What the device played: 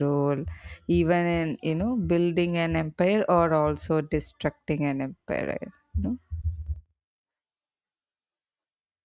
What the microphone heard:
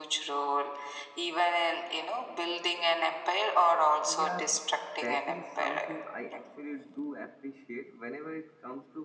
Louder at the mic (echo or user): echo